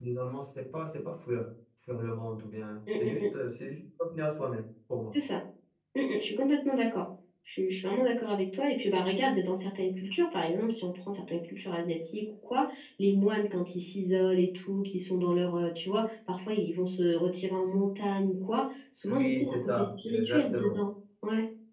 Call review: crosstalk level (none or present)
present